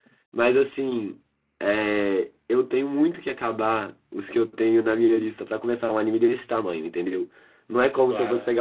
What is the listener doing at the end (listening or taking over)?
listening